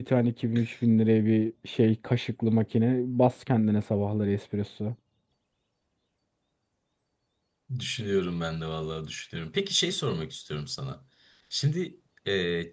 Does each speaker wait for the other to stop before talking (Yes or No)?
Yes